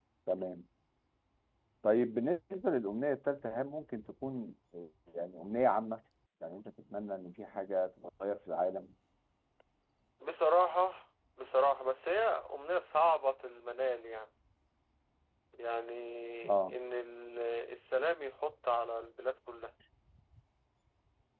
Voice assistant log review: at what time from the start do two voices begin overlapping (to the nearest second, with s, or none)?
none